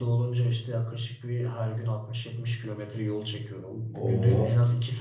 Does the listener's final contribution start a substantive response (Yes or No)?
No